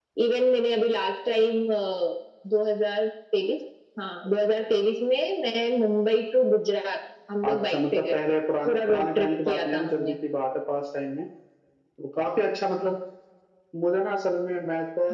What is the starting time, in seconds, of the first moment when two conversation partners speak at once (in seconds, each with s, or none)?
7.4 s